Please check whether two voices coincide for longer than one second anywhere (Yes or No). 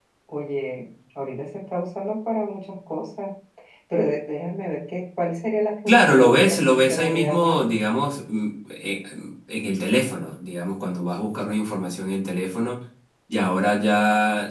Yes